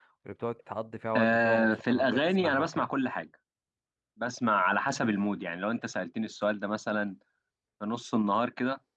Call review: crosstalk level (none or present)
present